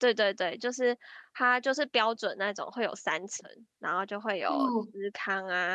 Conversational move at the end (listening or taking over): listening